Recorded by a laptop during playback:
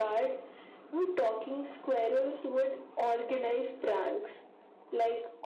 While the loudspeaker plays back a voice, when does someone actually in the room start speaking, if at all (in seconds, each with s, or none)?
none